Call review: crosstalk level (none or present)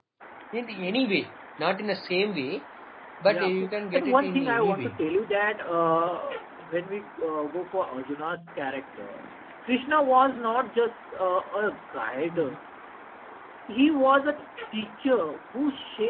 present